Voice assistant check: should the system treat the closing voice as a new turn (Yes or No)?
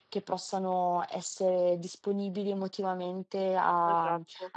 No